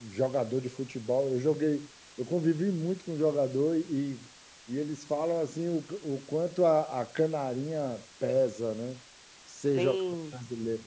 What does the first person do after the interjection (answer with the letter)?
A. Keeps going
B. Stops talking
A